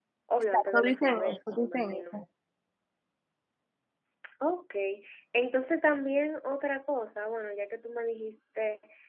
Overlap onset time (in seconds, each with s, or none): 0.5 s